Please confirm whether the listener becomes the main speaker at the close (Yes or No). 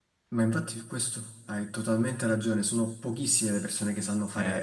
No